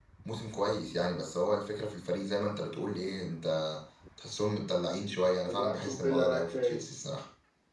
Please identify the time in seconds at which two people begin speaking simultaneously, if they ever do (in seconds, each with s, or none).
5.1 s